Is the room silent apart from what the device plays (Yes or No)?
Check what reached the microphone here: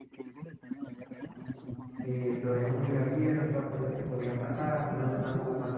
No